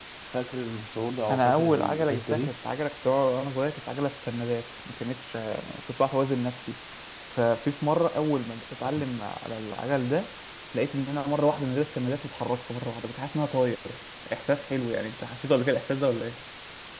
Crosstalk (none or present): present